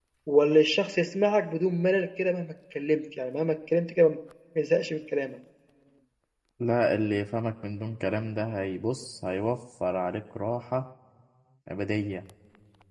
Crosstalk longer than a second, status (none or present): none